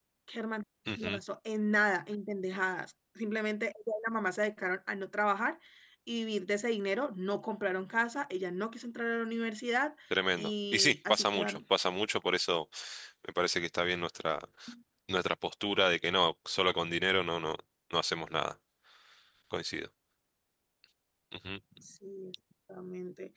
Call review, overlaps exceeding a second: present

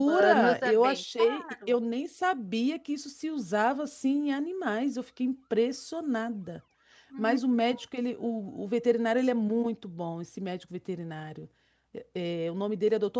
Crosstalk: present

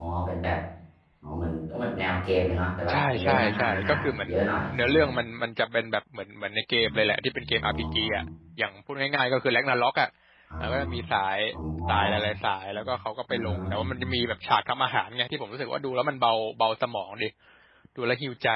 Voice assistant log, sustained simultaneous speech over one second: present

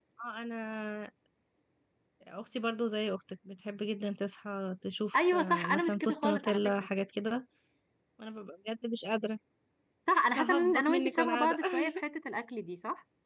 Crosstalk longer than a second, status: present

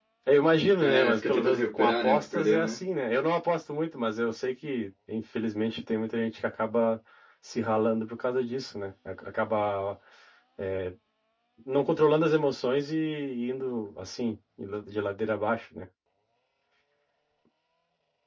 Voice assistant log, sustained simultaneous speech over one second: present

